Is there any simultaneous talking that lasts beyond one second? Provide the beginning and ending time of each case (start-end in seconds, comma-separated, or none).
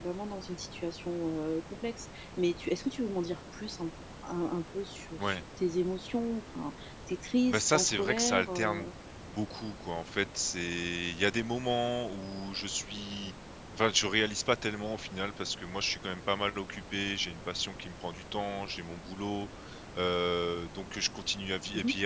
7.5-8.9